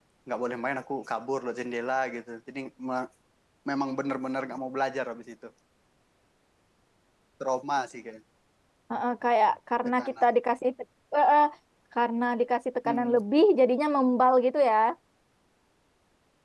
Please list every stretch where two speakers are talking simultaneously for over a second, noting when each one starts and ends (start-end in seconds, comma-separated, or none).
none